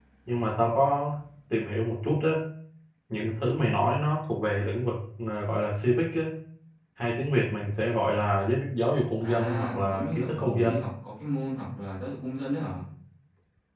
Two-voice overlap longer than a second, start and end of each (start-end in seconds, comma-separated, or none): 9.2-10.9